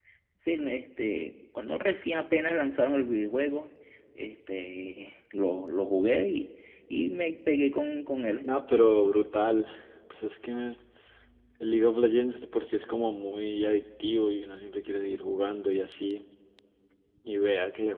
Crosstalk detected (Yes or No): No